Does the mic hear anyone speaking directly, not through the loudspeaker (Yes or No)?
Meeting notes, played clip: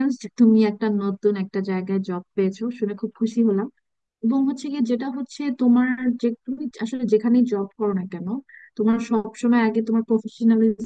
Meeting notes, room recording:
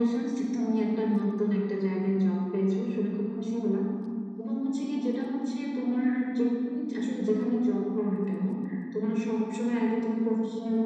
No